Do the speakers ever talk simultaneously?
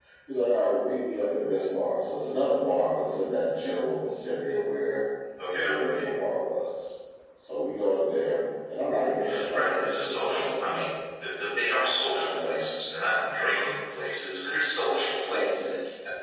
Yes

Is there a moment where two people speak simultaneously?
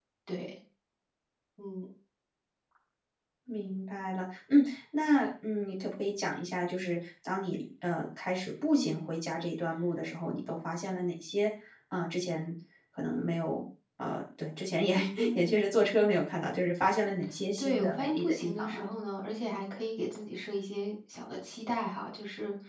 Yes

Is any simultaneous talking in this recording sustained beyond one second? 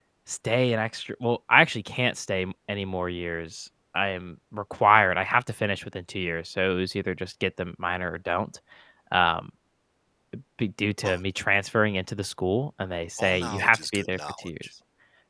Yes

